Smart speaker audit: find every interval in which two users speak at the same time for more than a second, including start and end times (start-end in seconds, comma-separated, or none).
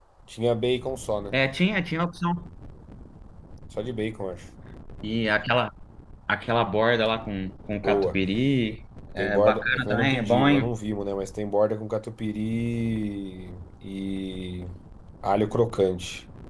9.2-10.7